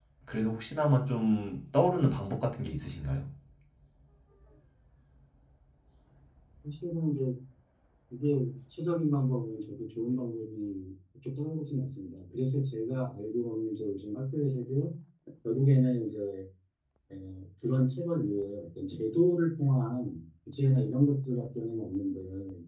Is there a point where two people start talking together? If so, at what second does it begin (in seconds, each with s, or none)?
none